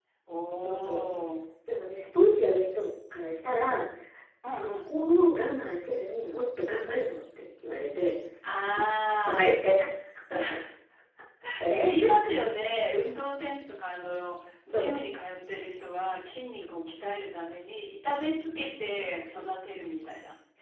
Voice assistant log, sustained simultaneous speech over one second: none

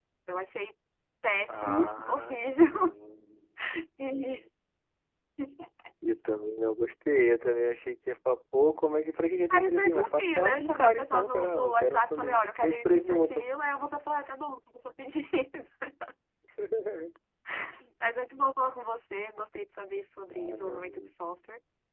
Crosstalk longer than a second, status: present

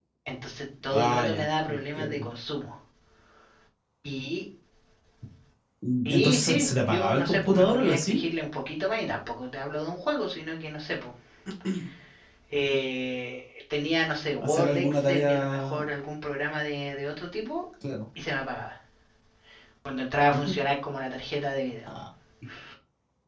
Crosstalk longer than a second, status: present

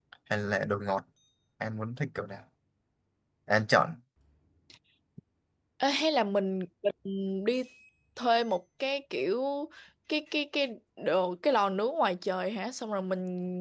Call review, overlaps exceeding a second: none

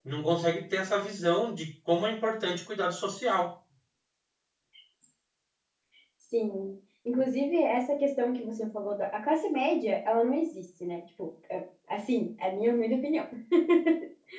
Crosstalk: none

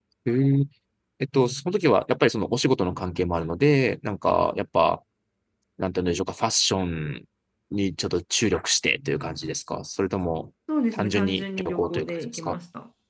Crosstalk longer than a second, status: present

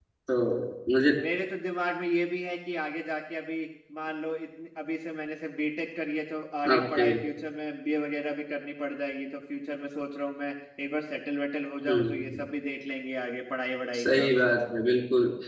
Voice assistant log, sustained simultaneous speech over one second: none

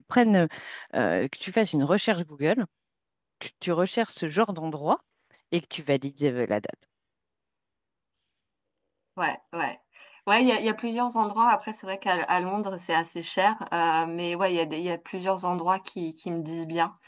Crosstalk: none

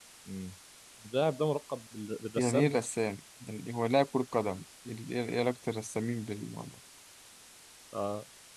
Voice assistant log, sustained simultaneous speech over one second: none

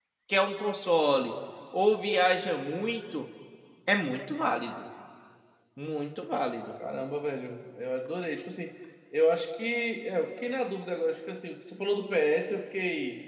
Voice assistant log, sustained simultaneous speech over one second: none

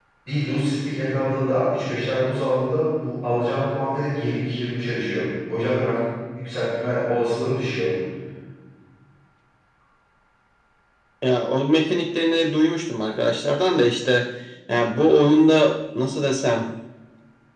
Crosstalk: none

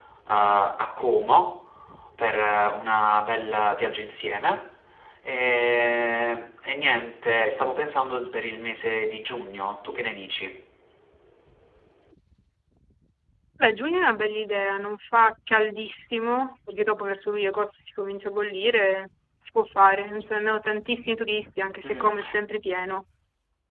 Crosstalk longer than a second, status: none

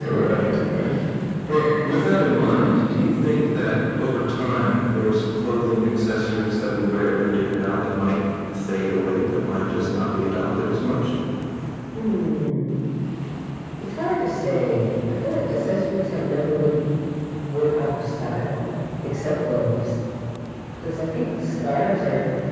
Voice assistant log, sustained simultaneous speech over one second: none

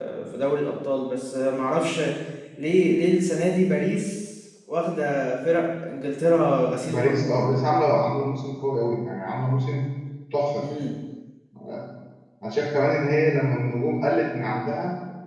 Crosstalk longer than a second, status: none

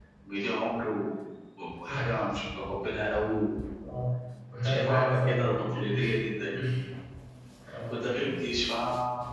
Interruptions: present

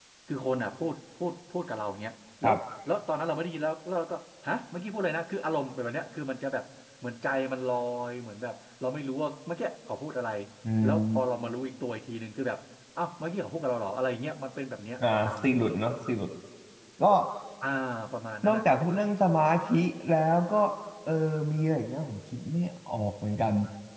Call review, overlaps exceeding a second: none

